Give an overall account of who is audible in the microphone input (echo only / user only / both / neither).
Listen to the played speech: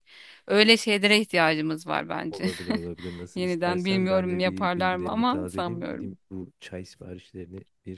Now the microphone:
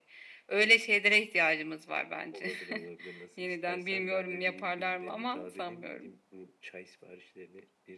echo only